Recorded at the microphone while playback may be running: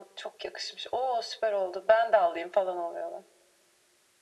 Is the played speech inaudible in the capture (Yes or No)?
No